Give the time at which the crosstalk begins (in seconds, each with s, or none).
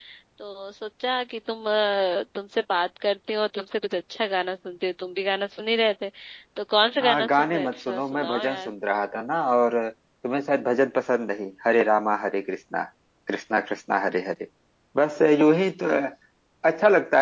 7.0 s